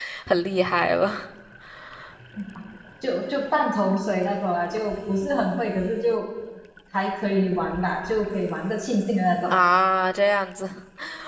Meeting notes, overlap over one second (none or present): none